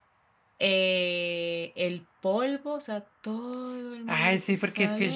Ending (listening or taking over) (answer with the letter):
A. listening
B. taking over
B